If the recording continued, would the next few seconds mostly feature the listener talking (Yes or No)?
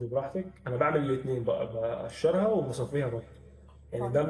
No